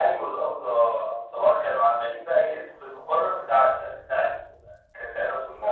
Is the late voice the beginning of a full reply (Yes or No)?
No